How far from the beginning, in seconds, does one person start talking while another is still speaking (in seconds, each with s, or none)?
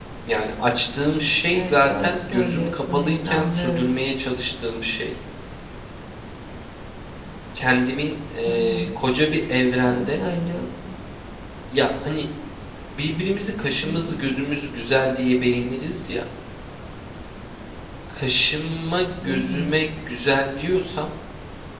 1.5 s